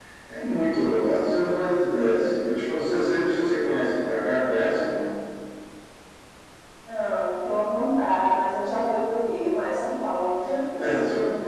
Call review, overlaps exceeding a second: none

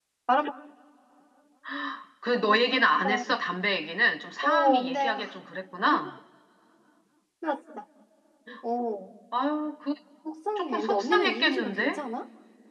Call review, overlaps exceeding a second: present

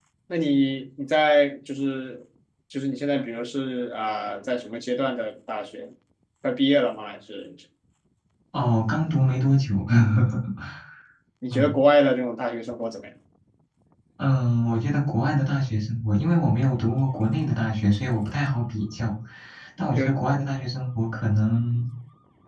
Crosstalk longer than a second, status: none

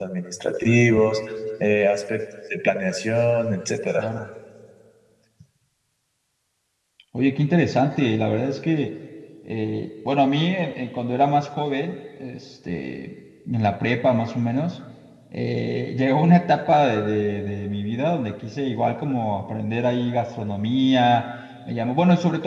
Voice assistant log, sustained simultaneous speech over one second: none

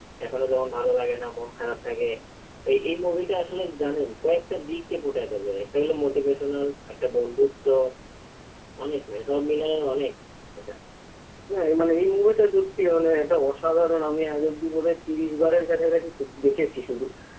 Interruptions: none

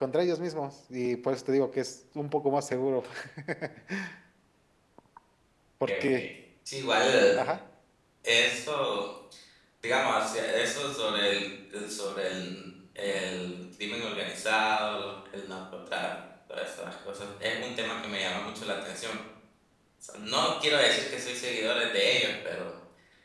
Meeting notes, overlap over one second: none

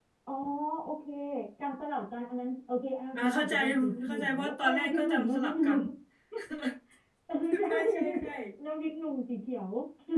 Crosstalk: present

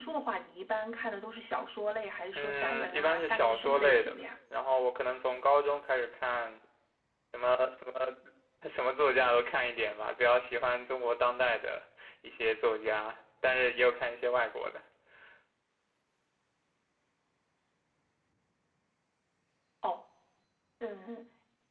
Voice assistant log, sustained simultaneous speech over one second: present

